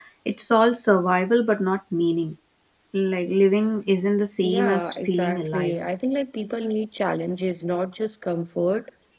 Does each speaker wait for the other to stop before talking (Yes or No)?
No